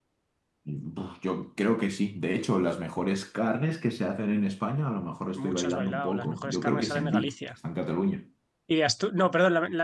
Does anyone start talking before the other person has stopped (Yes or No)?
Yes